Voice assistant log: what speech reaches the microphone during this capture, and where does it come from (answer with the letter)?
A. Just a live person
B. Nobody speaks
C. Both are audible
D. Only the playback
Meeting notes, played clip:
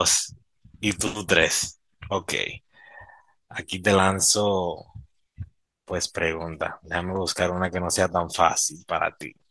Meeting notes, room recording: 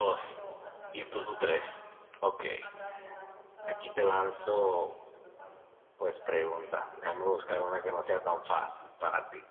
C